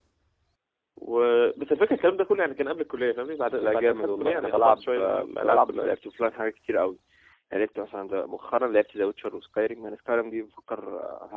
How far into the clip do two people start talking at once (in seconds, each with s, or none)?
3.6 s